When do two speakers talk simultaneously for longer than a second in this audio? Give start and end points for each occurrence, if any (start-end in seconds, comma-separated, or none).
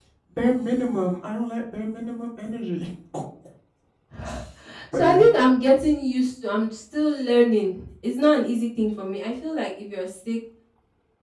none